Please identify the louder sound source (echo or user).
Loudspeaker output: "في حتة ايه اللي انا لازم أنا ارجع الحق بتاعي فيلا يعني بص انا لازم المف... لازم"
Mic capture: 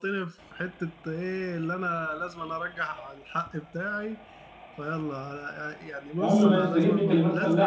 user